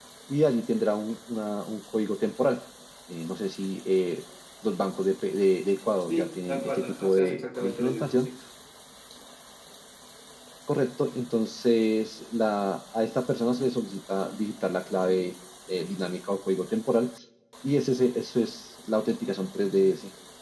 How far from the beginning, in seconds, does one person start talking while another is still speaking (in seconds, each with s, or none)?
6.1 s